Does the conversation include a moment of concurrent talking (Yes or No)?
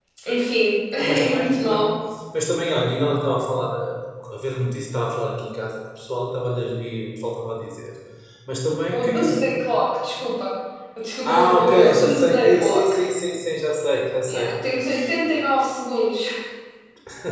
Yes